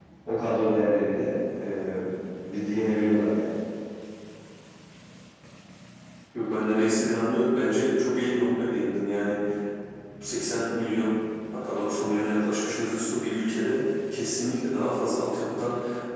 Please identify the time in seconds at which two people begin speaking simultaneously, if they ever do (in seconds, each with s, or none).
none